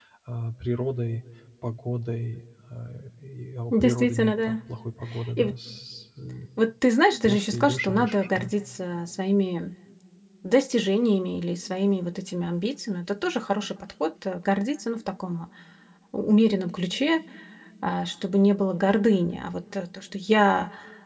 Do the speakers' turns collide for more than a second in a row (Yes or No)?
Yes